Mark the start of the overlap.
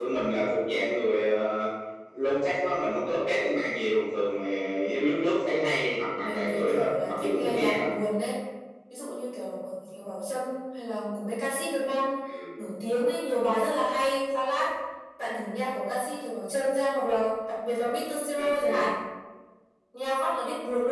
6 s

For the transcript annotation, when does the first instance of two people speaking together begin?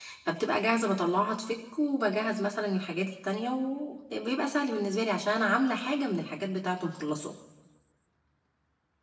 none

